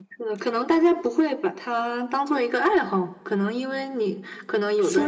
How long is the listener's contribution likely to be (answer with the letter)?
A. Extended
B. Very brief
A